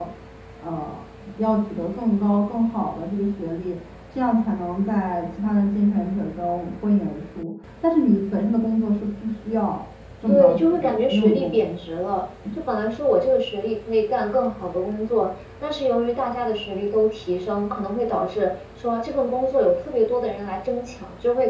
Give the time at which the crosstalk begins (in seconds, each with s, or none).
10.3 s